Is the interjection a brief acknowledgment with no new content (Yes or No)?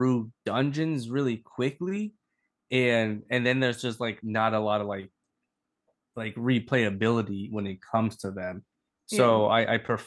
Yes